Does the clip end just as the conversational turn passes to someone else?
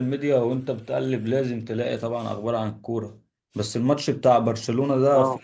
No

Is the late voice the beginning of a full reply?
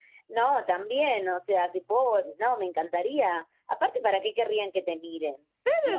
Yes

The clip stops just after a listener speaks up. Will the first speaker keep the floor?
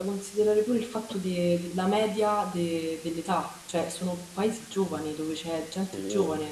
Yes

